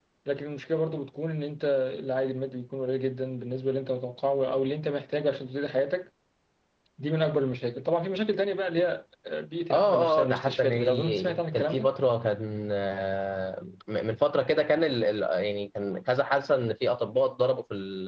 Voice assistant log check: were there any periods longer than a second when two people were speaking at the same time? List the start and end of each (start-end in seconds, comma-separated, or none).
9.7-11.9